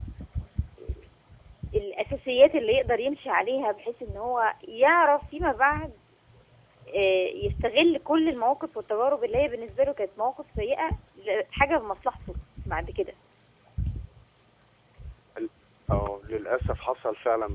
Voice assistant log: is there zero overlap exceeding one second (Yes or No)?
Yes